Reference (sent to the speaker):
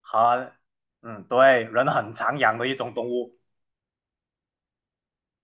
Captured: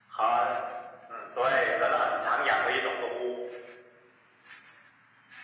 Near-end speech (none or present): none